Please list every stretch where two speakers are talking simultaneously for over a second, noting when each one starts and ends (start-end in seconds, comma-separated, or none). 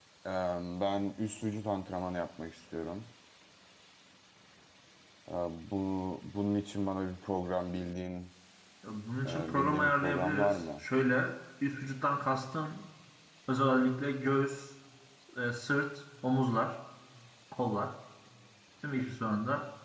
9.2-10.8